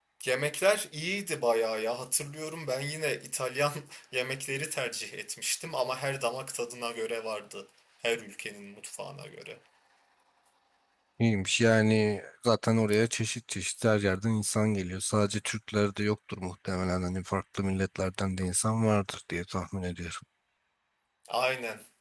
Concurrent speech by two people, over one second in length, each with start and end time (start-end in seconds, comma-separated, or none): none